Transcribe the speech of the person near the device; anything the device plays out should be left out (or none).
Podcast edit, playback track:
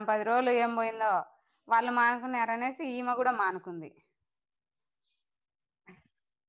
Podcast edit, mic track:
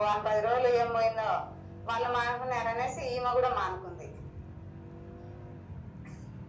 none